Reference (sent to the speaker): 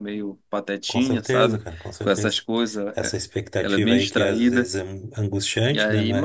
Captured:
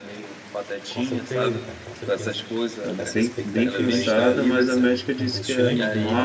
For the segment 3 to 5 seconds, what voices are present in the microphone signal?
both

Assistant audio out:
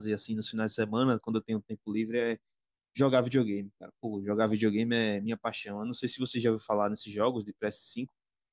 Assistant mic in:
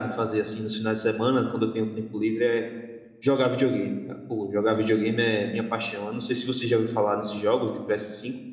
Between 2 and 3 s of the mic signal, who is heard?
echo only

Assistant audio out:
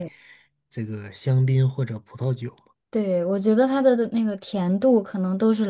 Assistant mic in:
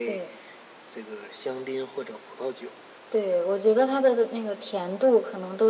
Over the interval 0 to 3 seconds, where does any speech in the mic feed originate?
echo only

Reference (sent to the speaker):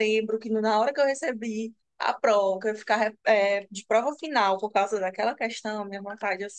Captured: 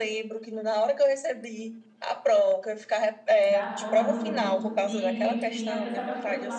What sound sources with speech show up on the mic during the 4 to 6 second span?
both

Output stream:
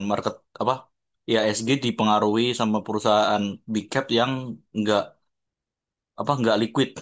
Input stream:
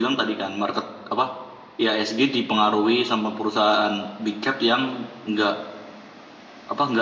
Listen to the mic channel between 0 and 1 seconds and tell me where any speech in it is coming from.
echo only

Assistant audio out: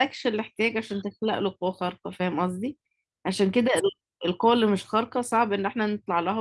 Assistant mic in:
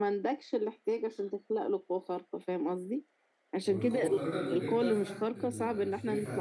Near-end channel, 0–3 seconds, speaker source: echo only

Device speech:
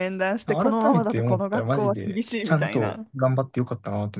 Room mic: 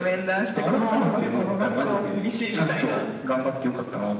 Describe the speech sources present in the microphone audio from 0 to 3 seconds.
echo only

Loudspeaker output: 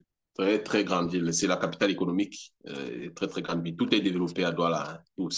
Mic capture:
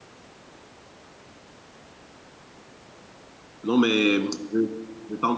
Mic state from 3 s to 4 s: user only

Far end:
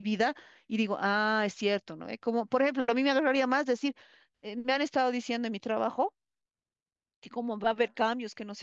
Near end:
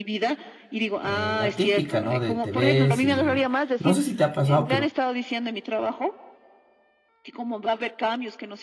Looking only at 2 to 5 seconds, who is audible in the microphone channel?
both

